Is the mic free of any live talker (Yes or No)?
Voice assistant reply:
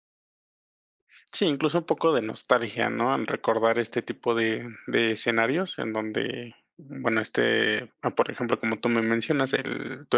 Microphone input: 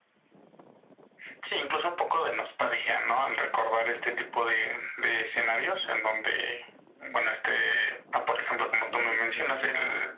No